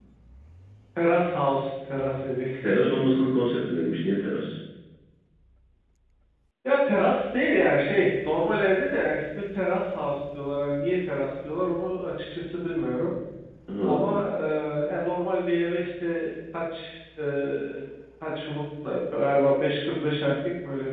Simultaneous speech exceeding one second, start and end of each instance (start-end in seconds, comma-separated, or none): none